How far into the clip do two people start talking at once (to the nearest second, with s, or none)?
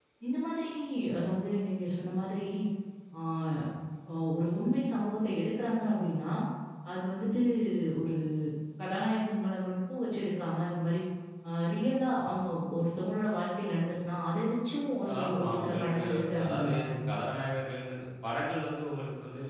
15 s